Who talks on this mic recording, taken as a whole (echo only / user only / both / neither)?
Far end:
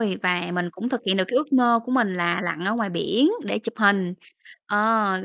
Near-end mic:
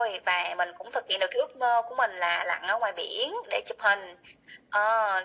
echo only